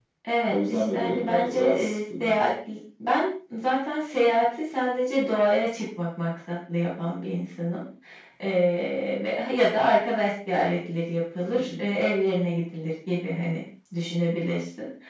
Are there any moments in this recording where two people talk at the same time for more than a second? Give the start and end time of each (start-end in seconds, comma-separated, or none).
0.5-2.4